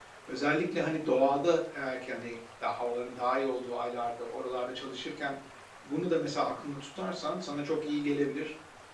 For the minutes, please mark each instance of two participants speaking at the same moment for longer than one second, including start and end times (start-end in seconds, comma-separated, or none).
none